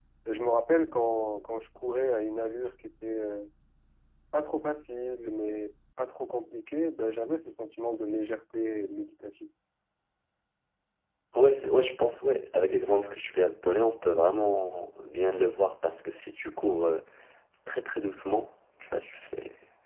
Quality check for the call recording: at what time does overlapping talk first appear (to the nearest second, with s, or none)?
none